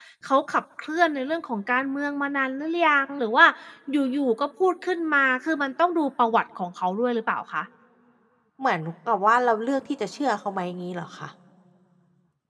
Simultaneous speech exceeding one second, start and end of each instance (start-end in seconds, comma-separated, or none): none